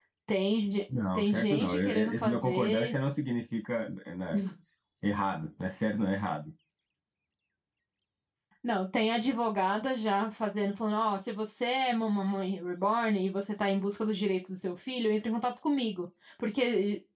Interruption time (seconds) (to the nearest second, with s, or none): 1 s